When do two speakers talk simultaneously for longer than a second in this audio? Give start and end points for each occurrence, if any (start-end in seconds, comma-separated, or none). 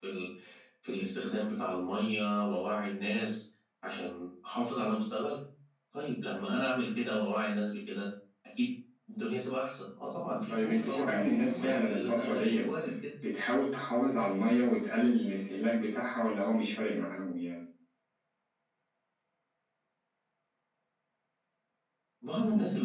10.5-12.6